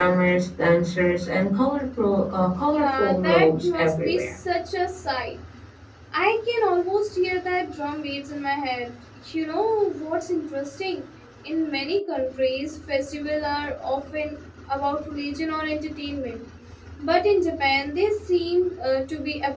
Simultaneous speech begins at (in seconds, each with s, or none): 2.7 s